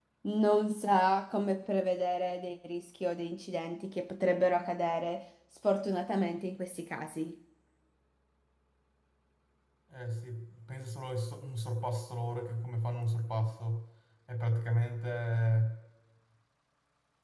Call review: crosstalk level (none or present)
none